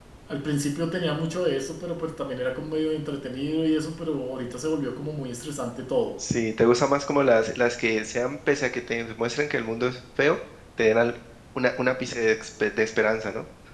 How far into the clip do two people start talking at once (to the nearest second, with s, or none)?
none